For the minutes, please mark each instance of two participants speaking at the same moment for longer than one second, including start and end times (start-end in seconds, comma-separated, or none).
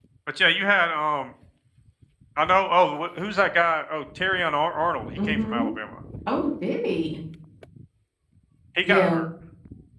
none